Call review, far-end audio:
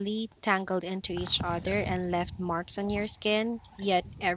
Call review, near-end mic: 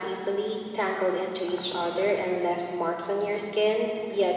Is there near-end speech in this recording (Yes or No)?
No